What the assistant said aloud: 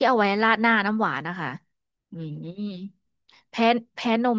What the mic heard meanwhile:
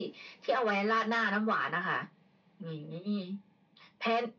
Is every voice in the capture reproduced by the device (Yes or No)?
Yes